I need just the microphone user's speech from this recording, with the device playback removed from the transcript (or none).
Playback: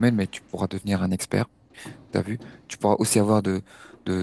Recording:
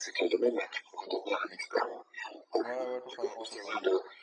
Ouais, ouais, totalement, totalement.